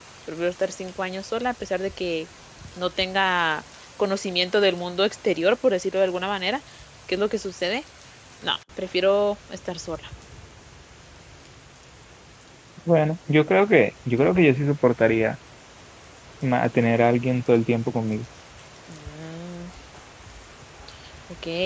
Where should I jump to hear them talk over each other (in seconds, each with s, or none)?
none